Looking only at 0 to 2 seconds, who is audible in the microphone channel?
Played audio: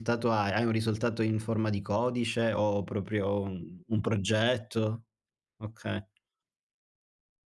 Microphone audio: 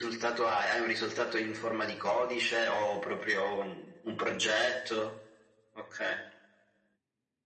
echo only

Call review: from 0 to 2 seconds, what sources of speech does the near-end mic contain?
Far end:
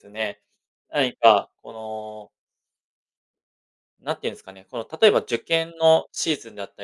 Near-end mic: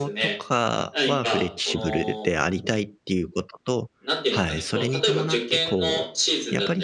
both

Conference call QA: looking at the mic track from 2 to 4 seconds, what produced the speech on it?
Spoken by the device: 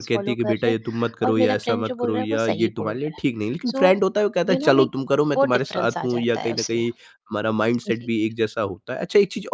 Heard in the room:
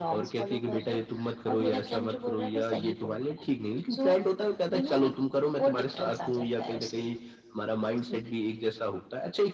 echo only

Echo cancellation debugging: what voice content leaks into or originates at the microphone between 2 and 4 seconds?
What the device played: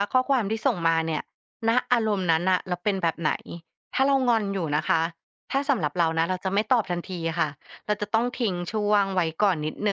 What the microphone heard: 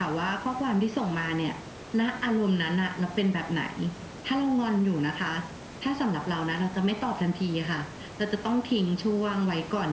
echo only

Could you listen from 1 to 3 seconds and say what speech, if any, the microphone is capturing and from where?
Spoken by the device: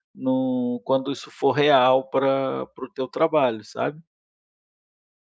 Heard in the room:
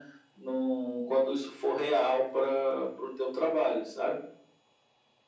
echo only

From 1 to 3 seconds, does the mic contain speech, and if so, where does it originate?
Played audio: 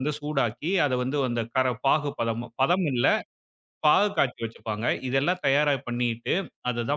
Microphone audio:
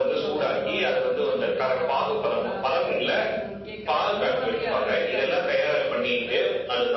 both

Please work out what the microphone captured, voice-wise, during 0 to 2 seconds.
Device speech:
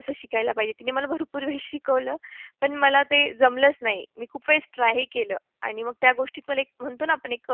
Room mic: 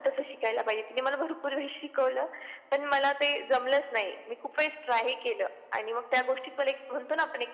echo only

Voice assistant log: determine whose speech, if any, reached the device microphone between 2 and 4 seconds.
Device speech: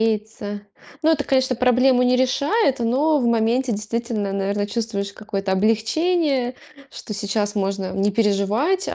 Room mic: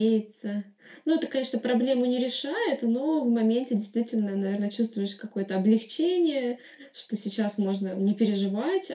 echo only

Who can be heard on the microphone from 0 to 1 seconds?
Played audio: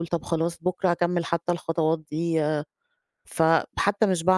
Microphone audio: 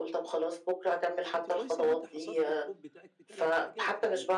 echo only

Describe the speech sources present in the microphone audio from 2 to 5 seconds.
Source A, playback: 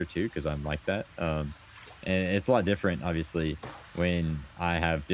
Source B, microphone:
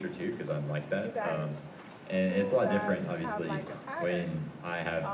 both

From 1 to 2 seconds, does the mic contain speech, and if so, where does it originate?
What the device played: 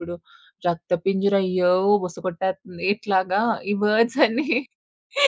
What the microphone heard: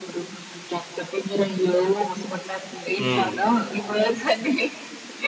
echo only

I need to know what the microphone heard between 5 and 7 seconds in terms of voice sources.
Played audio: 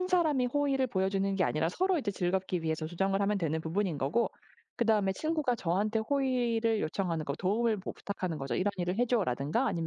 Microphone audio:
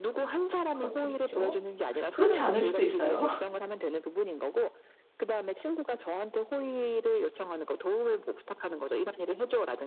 echo only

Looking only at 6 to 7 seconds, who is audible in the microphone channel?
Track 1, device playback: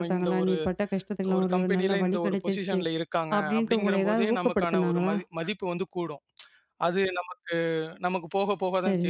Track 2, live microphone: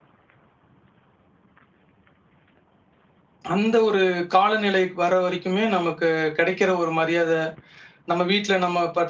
user only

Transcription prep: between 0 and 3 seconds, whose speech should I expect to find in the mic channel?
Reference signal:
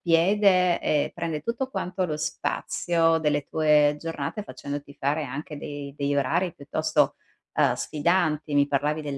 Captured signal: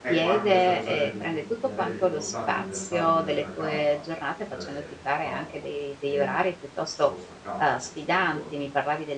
both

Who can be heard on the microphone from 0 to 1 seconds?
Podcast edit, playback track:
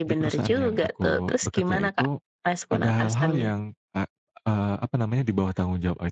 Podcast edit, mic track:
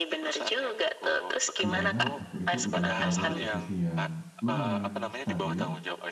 echo only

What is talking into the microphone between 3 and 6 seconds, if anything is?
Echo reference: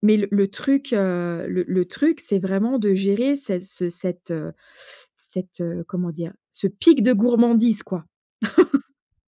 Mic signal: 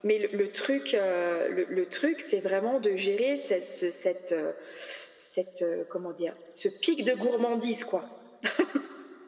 echo only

